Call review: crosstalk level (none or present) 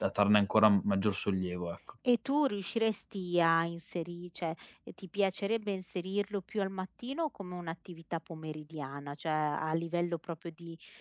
none